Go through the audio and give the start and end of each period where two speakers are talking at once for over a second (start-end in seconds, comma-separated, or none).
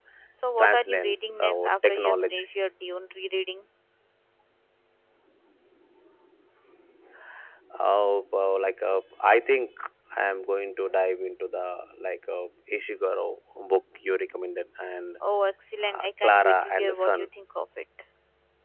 0.6-2.4, 15.8-17.3